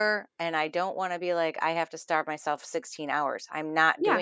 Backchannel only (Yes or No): No